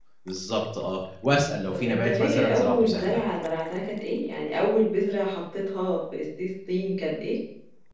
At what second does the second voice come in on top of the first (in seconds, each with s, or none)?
1.7 s